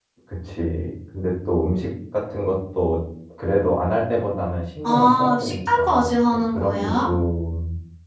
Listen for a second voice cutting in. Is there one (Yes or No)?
Yes